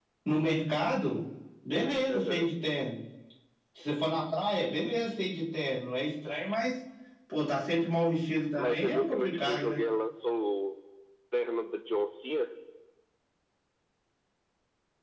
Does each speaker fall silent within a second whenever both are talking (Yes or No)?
No